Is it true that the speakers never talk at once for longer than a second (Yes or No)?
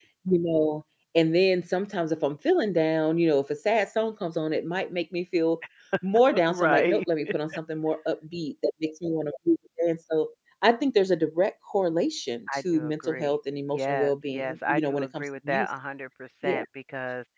No